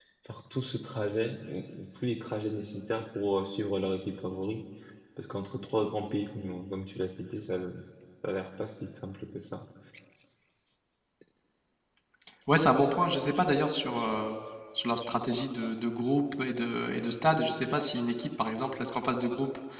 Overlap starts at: none

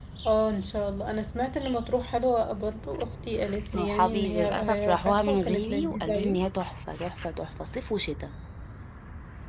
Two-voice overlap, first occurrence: 3.6 s

